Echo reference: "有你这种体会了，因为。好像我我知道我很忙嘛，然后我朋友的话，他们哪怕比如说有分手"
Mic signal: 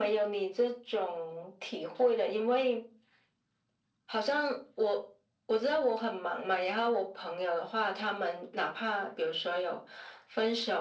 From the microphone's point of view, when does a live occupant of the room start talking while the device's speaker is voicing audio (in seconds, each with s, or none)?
none